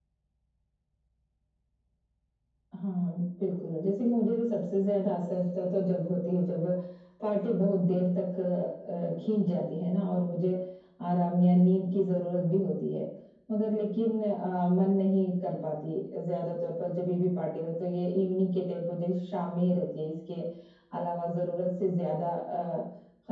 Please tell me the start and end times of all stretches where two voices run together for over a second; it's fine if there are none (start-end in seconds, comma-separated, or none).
none